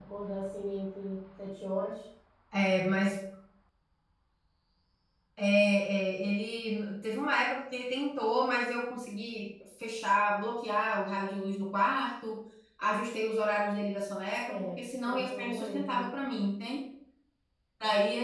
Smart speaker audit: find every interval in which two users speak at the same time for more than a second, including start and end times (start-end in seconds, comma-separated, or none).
14.5-16.1